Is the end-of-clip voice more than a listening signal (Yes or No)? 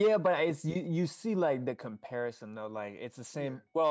No